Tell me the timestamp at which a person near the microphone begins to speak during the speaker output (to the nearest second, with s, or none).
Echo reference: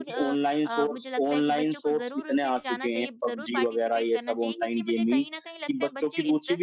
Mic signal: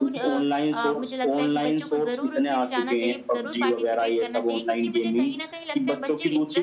none